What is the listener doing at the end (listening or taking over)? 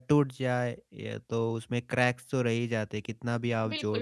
taking over